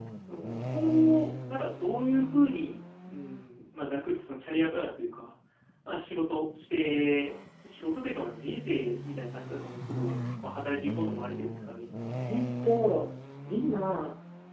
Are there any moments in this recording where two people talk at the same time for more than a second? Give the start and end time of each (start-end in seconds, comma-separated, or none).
none